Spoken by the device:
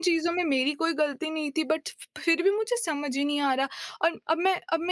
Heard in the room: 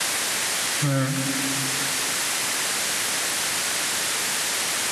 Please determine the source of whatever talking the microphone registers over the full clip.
user only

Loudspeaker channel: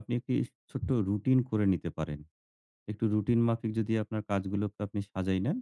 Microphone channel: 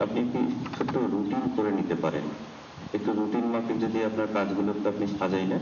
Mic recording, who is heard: echo only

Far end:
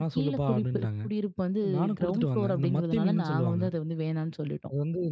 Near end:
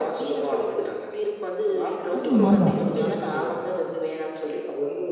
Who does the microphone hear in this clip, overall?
both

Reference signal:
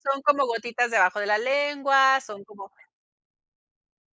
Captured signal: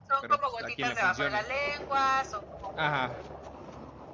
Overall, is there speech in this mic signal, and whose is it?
both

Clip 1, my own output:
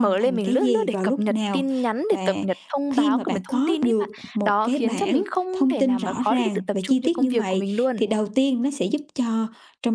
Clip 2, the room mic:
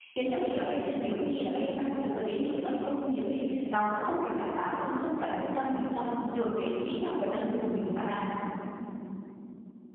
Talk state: user only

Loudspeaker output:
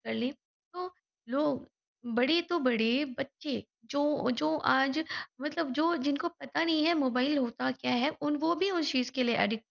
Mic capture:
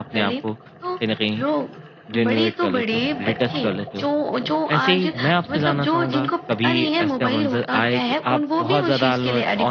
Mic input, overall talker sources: both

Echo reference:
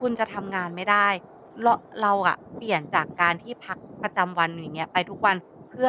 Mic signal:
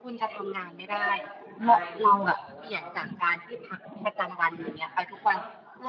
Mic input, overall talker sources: both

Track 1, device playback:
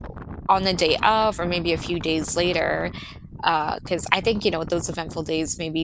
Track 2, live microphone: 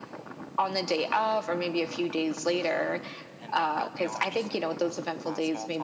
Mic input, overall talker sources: both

